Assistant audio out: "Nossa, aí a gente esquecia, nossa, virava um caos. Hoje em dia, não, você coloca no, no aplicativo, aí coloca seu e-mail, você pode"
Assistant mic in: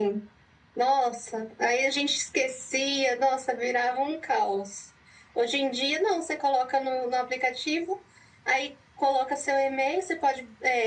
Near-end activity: none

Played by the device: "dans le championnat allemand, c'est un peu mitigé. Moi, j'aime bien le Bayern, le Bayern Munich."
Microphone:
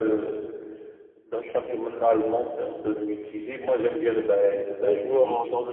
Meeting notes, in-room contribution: present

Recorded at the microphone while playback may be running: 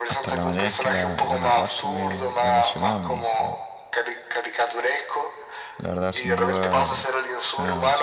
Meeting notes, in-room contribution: present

